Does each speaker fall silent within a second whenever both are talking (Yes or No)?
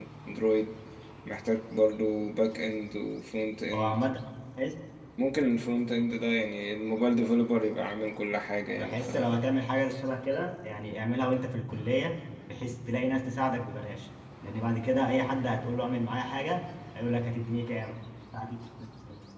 Yes